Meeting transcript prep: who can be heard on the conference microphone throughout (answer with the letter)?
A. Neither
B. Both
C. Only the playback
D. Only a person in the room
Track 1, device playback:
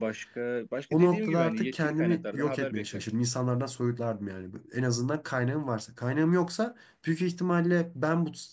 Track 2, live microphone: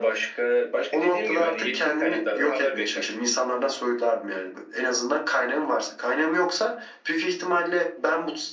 C